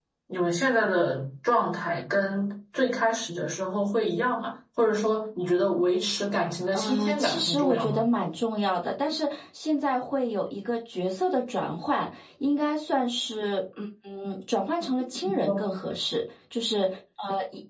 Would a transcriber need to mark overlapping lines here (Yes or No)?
Yes